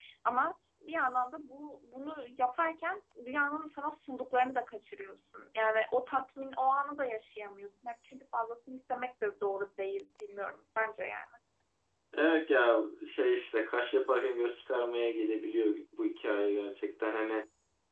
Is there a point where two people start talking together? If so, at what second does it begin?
none

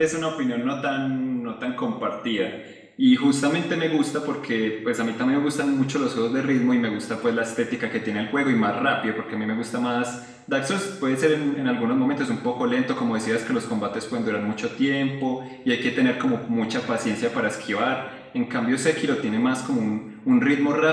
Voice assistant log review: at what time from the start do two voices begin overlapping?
none

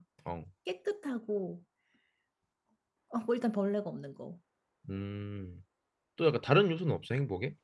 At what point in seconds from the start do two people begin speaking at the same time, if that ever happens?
none

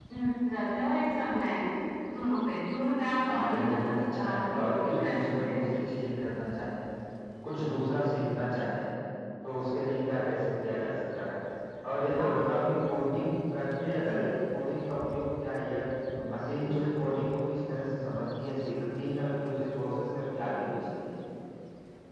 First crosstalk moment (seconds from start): 3.2 s

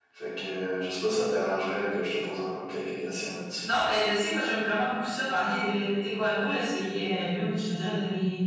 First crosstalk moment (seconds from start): none

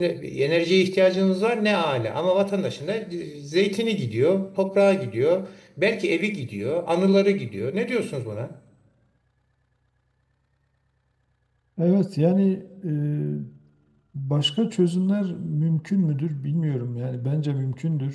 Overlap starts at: none

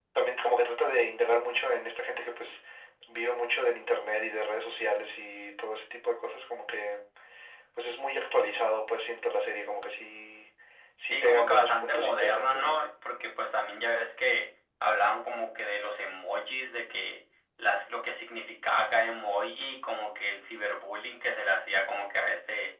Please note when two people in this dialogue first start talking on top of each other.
11.1 s

